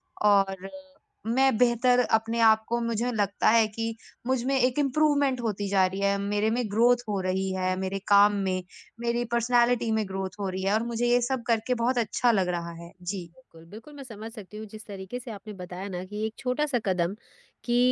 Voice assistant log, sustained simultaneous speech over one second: none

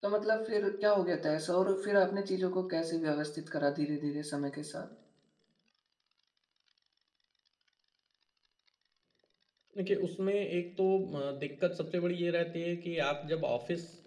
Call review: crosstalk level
none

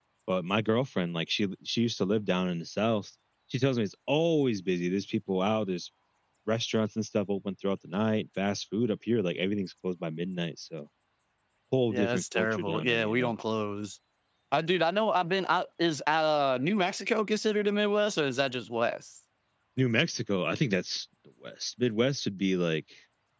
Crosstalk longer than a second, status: present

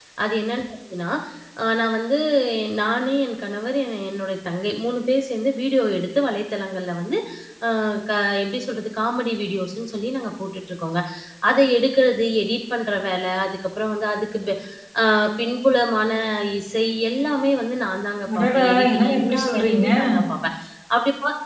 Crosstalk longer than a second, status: present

